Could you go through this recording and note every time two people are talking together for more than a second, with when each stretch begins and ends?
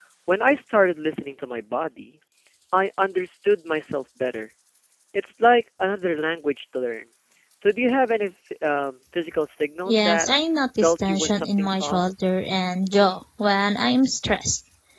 10.8-12.0

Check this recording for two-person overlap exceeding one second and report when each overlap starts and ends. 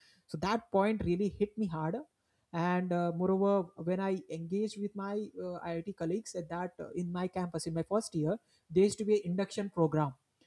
none

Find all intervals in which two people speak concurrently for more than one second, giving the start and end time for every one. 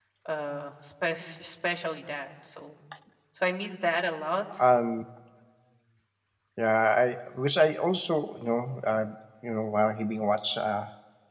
none

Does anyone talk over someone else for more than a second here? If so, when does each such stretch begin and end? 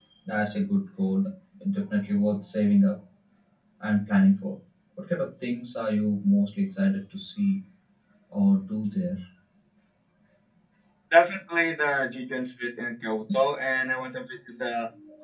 none

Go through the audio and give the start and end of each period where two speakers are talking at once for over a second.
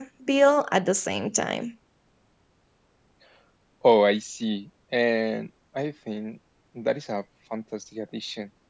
none

